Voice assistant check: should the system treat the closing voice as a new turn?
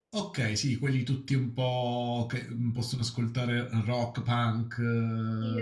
Yes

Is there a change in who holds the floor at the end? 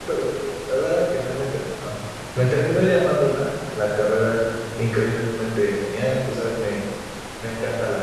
No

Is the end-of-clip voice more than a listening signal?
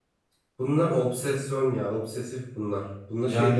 No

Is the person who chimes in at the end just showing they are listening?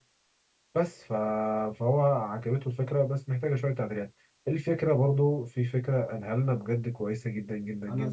No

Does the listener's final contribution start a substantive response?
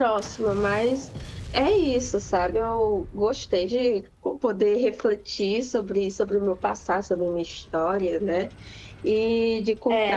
Yes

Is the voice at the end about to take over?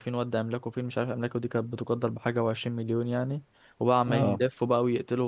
No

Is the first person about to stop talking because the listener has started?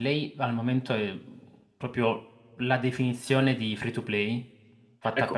Yes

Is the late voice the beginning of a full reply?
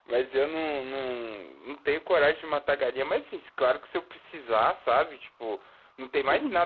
No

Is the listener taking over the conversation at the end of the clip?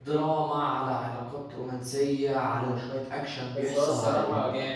Yes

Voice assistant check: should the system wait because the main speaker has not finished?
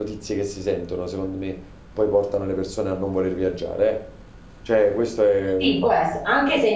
No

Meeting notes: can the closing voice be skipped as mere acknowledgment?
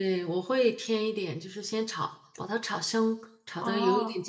Yes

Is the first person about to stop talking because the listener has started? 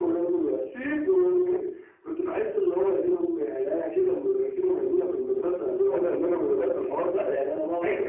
Yes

